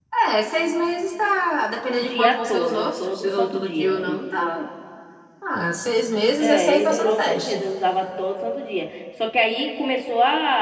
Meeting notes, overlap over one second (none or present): present